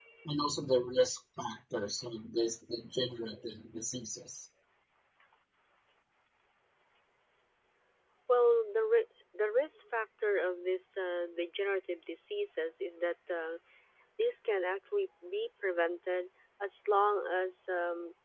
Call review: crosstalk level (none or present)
none